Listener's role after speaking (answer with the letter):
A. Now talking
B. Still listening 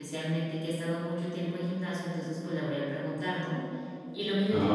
B